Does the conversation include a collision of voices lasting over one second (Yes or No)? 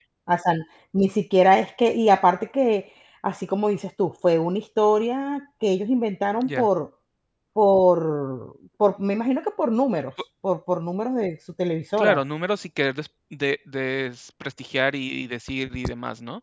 No